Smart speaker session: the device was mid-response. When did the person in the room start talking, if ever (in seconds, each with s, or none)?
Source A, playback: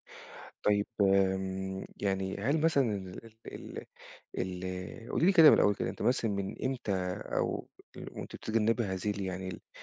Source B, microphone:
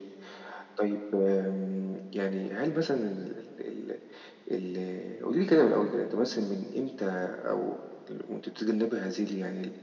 none